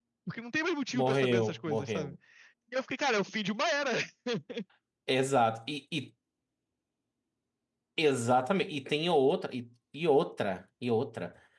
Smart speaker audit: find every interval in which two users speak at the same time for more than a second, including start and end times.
0.9-2.2

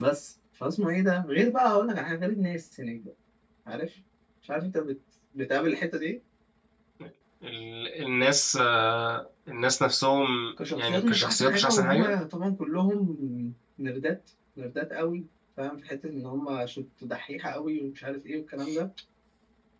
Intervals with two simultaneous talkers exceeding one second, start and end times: 10.7-12.1

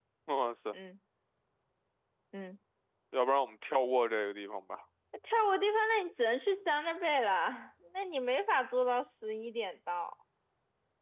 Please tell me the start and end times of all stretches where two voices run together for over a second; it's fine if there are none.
none

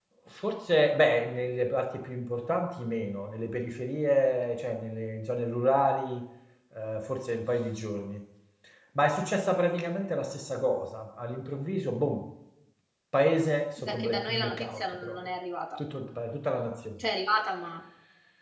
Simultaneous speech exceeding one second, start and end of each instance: 13.8-15.2

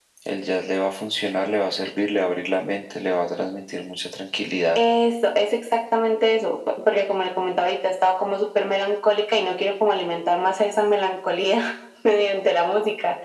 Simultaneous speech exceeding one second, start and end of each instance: none

